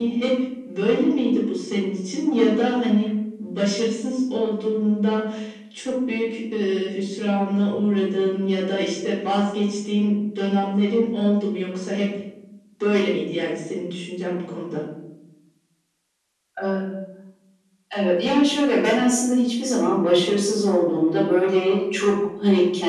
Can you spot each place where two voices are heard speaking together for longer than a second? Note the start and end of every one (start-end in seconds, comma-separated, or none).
none